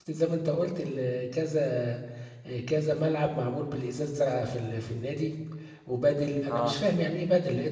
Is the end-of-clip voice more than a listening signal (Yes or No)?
No